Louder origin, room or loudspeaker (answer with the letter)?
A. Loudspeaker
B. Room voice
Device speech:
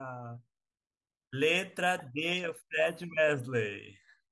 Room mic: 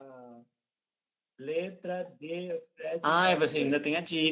B